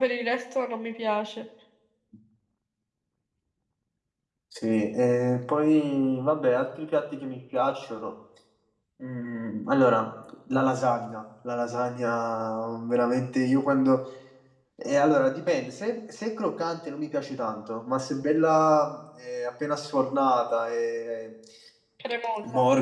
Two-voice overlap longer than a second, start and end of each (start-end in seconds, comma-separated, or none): none